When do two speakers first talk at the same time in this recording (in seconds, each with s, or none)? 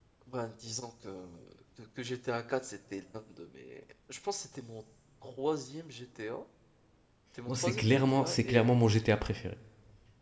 7.5 s